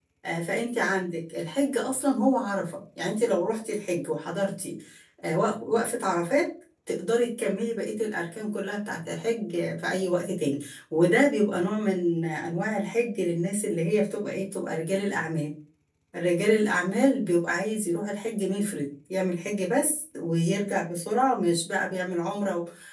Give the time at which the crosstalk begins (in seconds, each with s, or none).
none